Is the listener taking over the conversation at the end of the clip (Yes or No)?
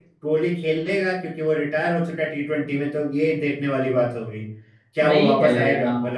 Yes